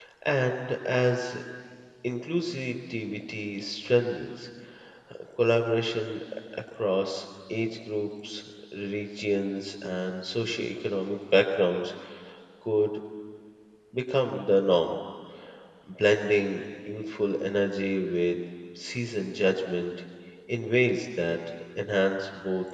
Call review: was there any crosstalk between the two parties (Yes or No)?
No